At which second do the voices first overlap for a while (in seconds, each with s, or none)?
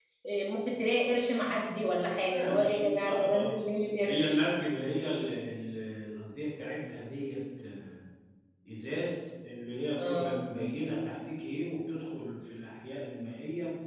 2.3 s